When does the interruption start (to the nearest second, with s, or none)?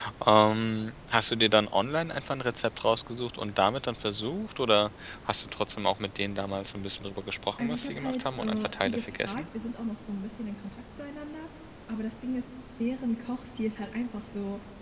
8 s